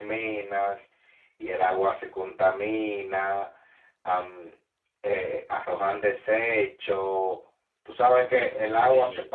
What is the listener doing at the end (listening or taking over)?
listening